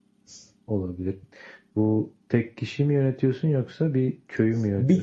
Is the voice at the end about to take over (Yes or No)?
Yes